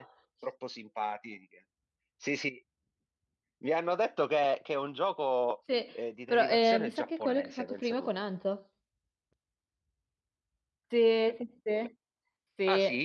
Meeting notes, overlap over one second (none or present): present